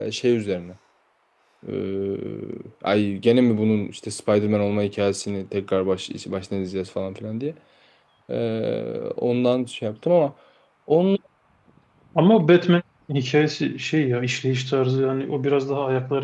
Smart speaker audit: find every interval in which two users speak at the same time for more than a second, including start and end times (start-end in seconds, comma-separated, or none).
none